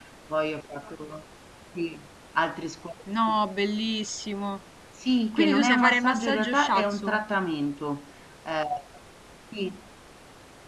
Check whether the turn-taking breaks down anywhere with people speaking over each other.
Yes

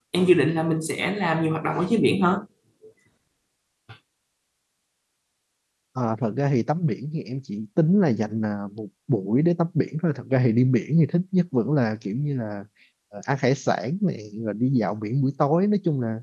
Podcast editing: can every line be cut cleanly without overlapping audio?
Yes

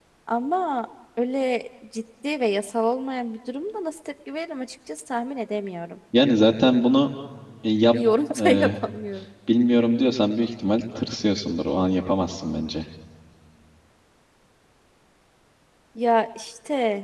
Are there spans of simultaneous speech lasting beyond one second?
No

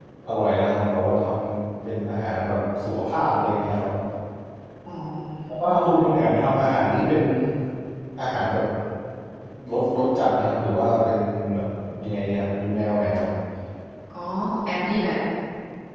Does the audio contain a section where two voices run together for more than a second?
No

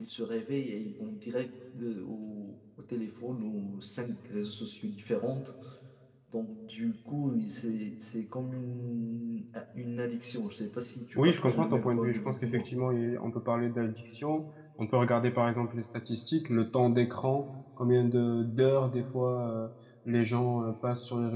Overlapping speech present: Yes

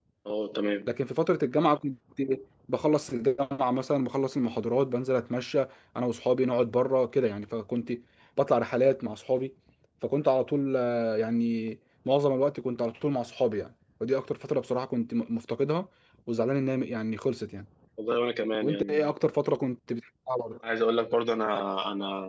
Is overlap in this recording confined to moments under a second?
Yes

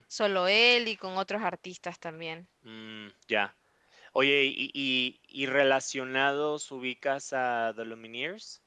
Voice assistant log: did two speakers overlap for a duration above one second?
No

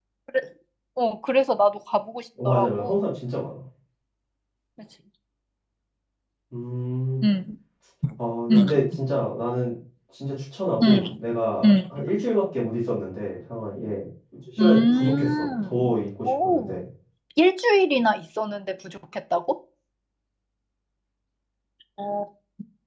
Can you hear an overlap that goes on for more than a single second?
Yes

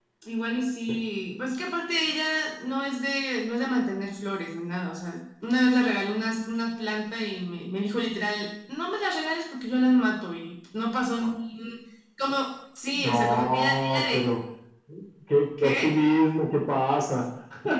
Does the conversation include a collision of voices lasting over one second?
Yes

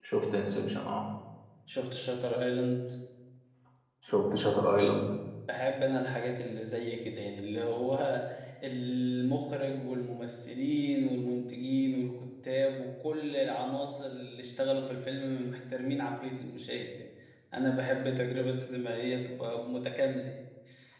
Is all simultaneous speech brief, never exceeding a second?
Yes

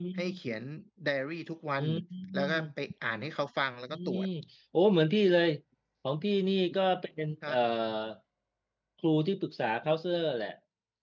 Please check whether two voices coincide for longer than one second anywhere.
No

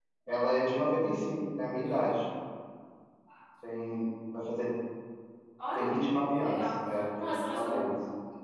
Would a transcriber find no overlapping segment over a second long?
No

